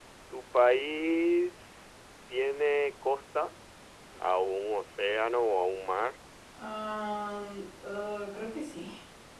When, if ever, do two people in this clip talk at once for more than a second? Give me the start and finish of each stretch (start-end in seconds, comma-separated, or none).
none